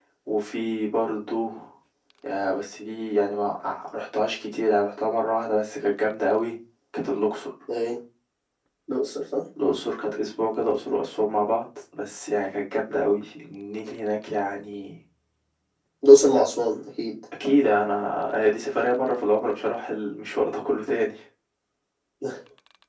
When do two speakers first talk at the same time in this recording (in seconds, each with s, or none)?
none